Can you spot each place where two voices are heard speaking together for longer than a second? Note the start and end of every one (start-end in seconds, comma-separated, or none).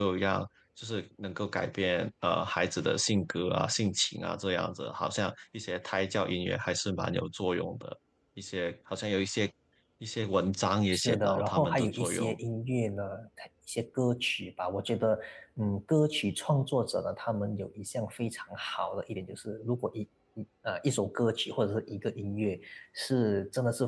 10.9-12.4